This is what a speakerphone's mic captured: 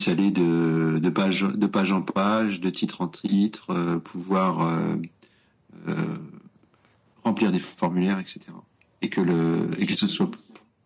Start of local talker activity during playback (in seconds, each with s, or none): none